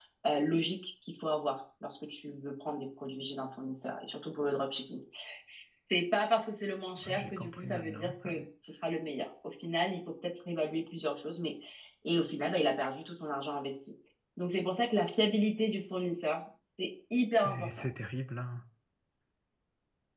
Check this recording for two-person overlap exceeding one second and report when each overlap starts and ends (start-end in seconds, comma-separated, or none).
7.0-8.4